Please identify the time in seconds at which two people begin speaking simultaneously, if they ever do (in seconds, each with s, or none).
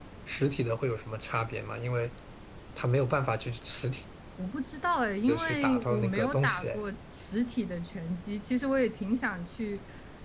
5.3 s